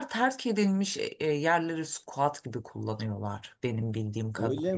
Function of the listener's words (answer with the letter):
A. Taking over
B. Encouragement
A